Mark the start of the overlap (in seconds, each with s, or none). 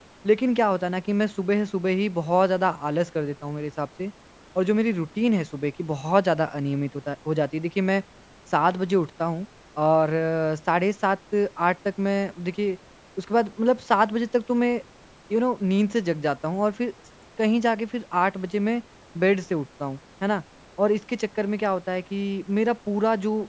none